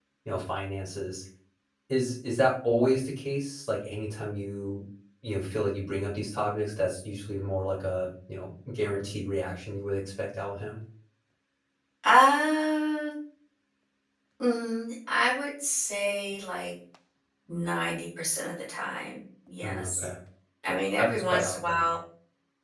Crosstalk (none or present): present